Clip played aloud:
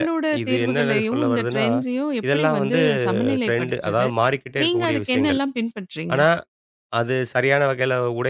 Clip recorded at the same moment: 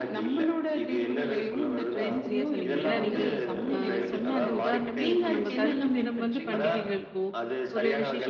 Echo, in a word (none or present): present